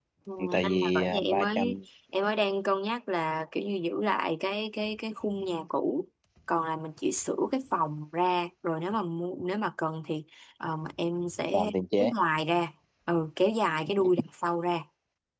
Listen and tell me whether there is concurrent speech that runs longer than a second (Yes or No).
Yes